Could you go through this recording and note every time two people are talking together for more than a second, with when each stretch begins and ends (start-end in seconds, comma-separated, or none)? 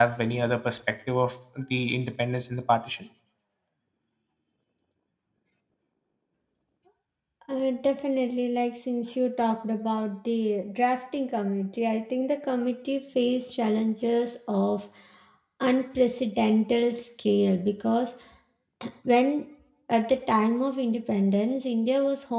none